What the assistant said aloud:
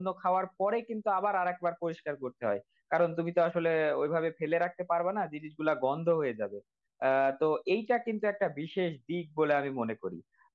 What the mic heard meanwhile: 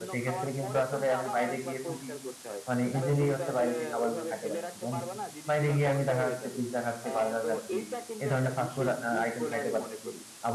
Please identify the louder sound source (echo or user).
user